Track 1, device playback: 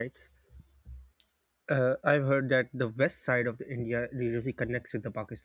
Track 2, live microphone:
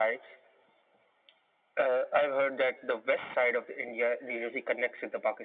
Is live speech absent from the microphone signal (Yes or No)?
Yes